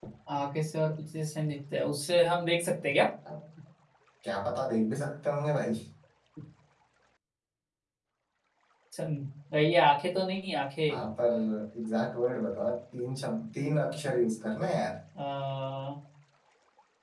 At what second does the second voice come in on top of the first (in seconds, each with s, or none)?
none